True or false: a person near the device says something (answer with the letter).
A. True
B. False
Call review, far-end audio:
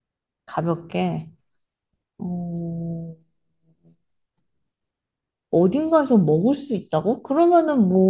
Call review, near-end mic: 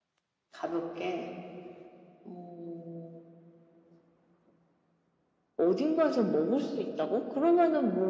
B